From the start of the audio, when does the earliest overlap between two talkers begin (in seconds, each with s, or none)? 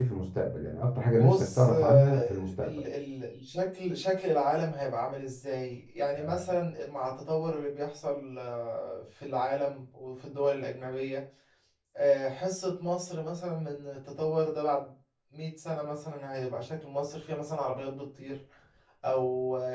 1.2 s